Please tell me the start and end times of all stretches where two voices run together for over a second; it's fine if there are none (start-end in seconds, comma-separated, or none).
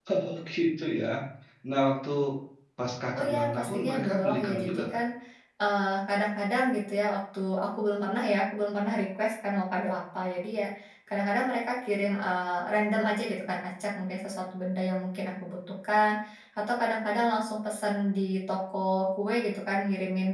3.1-5.0